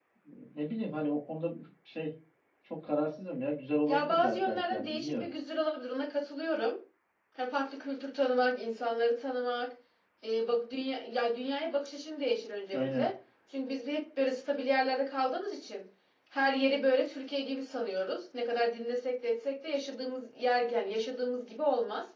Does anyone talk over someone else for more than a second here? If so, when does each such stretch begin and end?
3.9-5.3

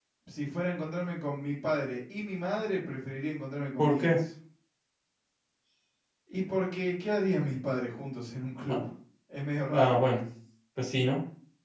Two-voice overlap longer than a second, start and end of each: none

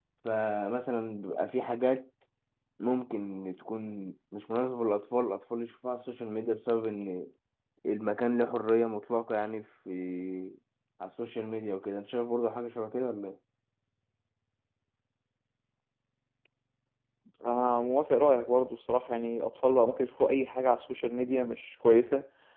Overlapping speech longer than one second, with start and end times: none

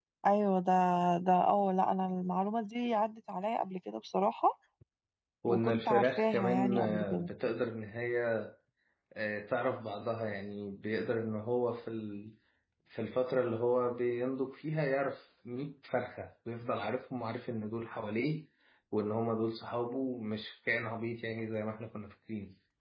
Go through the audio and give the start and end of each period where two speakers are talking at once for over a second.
5.5-7.3

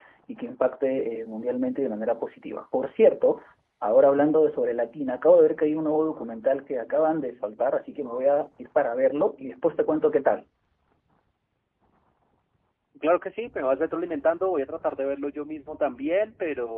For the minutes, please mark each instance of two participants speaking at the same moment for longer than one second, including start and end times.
none

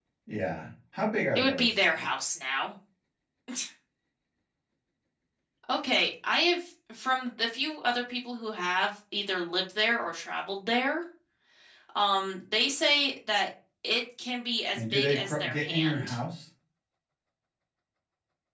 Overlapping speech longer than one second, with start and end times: 14.8-16.2

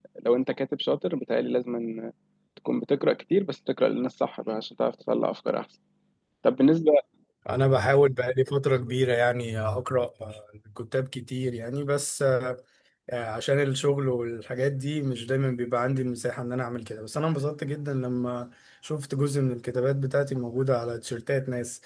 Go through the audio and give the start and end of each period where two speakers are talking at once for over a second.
none

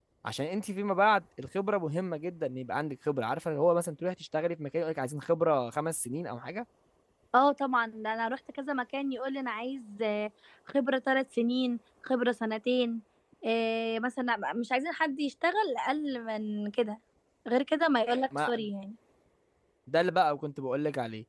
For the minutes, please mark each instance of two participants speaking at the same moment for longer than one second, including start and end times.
none

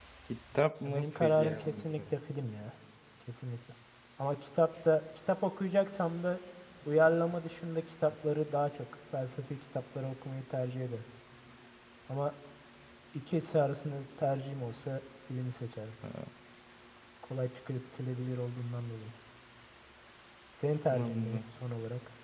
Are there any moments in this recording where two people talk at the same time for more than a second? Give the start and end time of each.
0.8-2.1

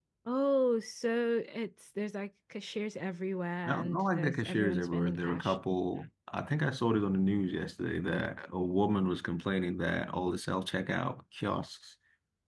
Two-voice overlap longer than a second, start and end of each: 3.6-5.6

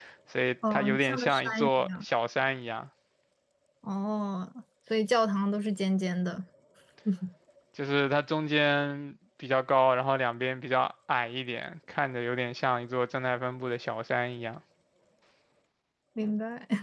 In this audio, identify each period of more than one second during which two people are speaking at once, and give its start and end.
0.7-2.0

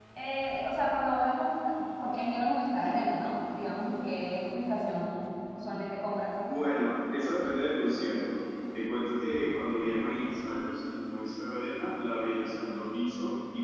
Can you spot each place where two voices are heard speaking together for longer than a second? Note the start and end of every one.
none

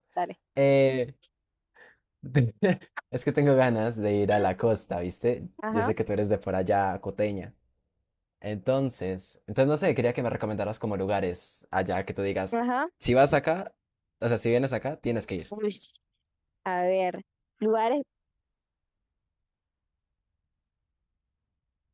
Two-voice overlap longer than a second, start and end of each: none

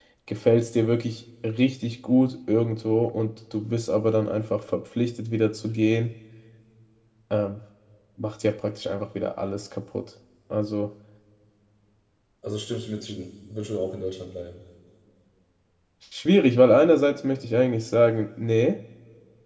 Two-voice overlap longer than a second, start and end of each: none

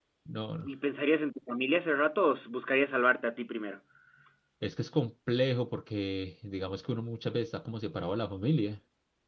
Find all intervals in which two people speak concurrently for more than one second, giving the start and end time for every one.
none

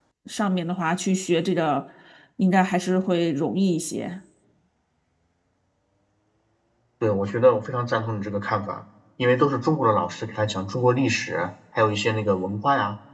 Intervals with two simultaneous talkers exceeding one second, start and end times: none

